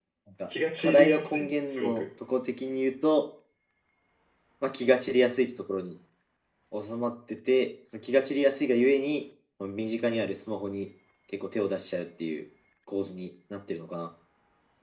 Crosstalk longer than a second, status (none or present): present